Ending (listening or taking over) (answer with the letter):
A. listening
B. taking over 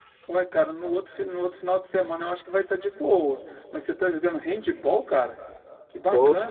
A